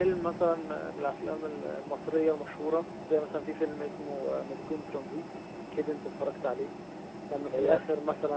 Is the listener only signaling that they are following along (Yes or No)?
Yes